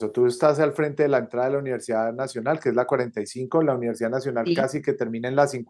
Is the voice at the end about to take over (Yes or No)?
No